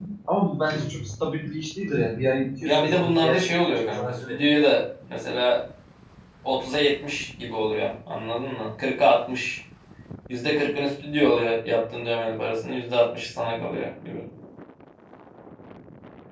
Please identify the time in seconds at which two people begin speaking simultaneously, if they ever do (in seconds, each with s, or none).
2.6 s